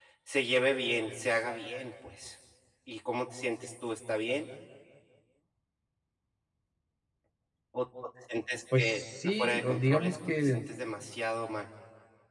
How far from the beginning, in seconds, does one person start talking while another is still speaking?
8.7 s

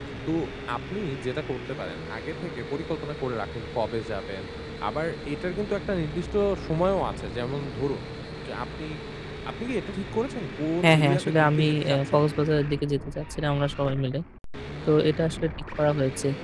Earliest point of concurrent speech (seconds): 10.8 s

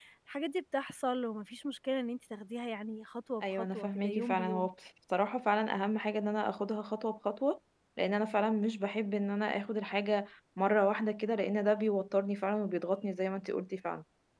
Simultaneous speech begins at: 3.4 s

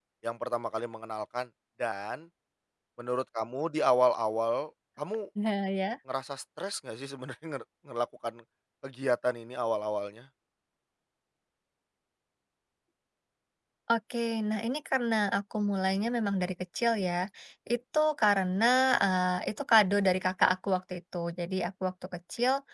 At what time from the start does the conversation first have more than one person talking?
none

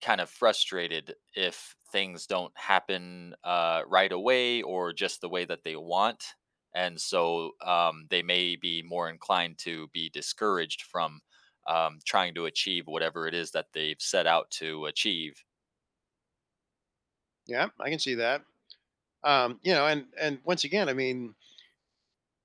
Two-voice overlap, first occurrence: none

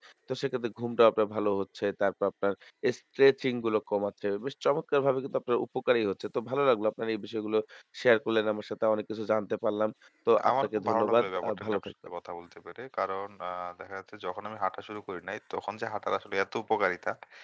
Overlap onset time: 10.3 s

